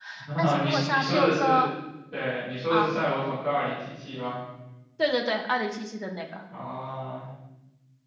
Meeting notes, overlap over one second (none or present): present